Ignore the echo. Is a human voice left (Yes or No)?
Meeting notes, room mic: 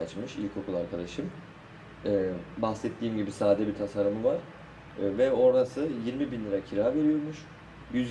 Yes